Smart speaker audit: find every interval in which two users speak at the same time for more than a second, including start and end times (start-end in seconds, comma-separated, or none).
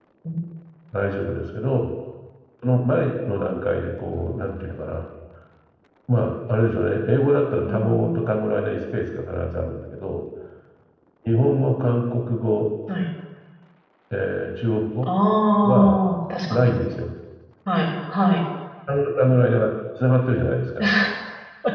none